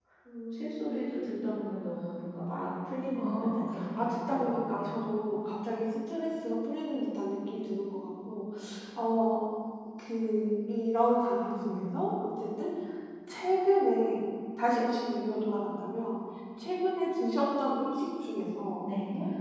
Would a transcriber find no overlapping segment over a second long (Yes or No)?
No